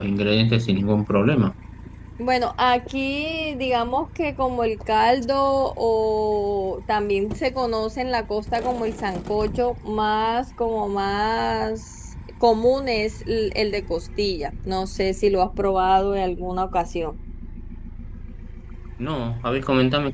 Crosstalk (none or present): none